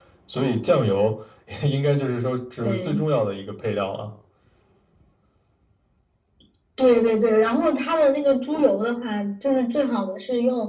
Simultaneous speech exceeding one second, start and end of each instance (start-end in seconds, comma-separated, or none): none